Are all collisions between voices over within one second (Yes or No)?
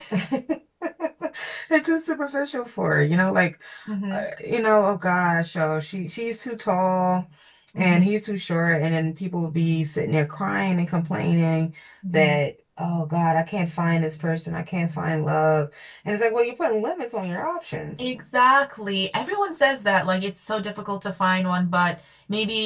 Yes